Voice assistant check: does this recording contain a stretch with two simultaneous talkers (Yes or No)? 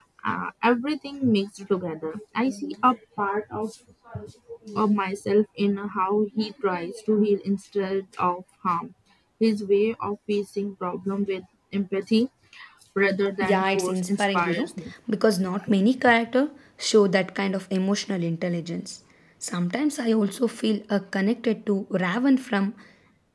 Yes